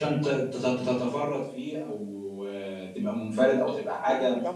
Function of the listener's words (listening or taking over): listening